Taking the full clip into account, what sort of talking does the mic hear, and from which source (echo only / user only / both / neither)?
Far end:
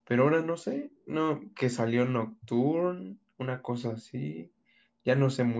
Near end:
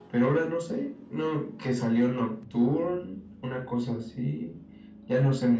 echo only